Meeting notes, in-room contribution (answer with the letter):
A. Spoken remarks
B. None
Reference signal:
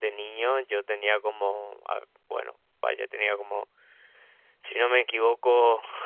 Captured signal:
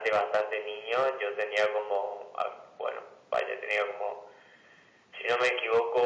B